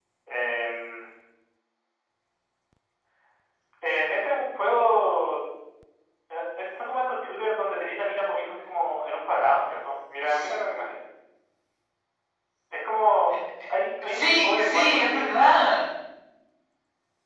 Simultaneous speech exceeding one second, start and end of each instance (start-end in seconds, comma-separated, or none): 14.1-15.6